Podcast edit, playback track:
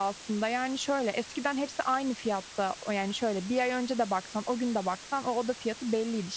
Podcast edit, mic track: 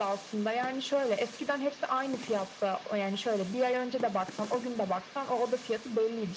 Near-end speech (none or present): none